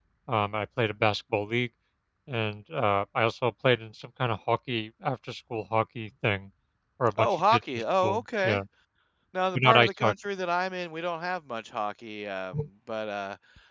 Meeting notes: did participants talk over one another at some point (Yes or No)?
Yes